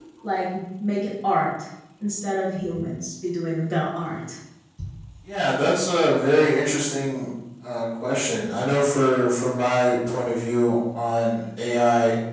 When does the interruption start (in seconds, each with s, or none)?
none